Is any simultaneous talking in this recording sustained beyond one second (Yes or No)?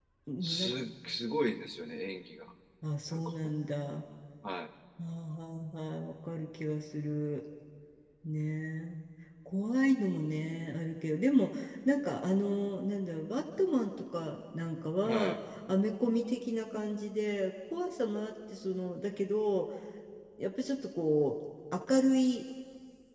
No